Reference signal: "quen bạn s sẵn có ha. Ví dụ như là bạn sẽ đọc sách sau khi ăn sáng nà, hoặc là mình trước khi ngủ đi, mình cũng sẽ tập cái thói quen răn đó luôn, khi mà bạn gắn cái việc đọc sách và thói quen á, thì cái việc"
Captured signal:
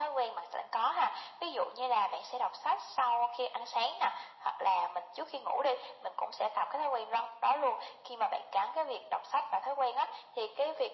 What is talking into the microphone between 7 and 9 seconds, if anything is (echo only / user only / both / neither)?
echo only